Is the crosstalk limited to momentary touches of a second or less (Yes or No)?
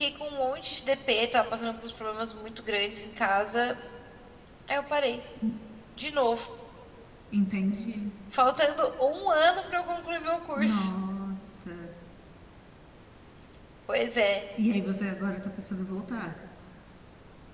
Yes